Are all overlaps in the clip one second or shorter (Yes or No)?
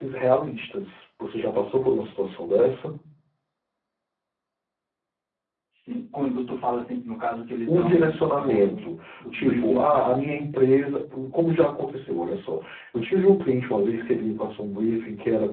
No